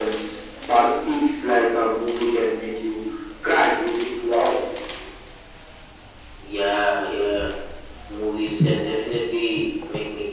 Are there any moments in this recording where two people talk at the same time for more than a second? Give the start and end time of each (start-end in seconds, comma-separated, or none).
none